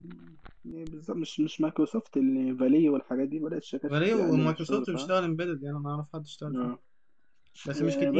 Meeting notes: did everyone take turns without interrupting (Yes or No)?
No